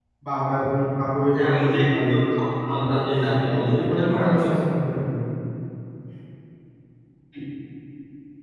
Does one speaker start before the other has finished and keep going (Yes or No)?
Yes